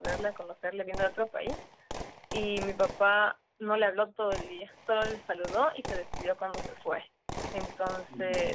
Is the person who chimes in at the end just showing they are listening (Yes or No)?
Yes